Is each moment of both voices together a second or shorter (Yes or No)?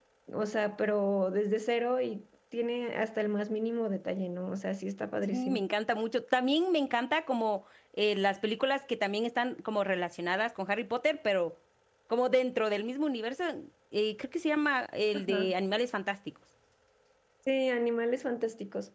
Yes